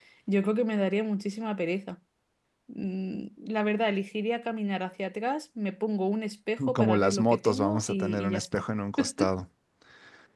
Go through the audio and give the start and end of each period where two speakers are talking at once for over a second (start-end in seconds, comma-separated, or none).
6.7-8.6